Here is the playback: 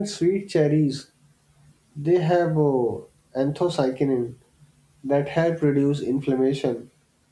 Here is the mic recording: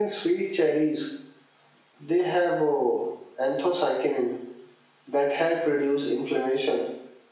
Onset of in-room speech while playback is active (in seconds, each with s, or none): none